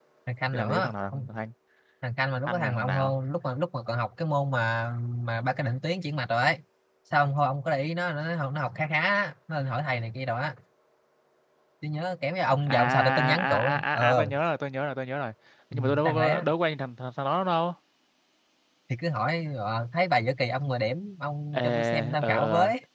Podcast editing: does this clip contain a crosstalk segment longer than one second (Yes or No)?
Yes